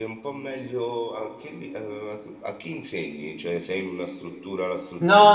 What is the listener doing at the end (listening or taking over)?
taking over